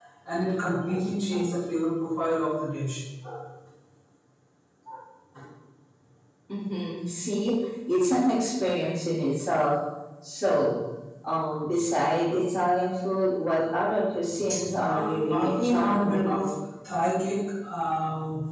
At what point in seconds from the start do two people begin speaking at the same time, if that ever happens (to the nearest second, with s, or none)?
15 s